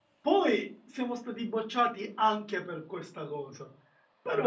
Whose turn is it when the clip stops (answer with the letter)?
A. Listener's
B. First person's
A